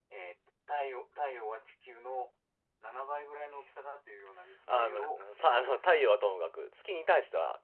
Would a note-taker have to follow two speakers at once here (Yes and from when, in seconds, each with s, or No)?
Yes, from 4.7 s